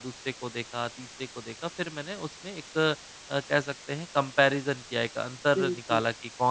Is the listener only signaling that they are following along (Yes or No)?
Yes